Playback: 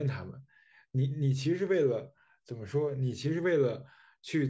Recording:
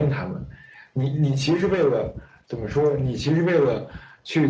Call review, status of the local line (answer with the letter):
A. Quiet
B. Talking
A